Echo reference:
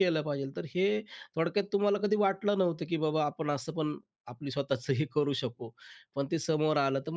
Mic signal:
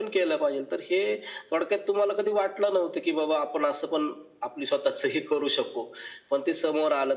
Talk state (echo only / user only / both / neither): echo only